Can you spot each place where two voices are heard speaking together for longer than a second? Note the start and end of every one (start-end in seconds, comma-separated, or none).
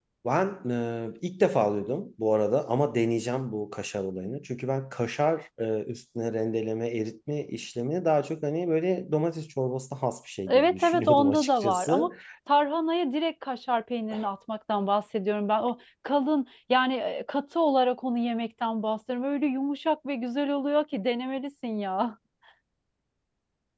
10.5-12.1